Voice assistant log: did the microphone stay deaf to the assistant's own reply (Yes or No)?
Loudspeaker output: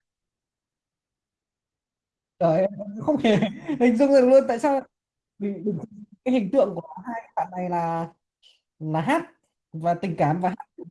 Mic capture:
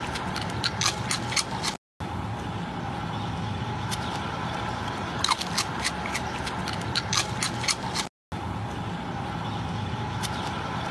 Yes